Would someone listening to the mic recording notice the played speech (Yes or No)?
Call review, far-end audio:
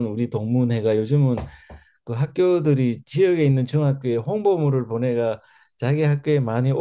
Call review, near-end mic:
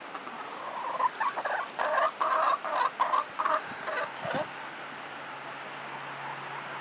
No